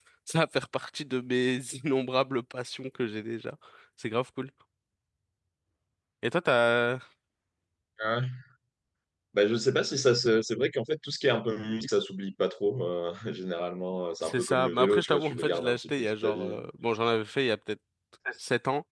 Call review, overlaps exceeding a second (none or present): present